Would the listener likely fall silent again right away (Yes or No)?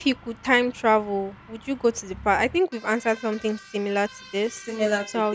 No